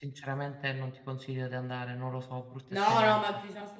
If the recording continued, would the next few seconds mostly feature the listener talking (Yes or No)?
Yes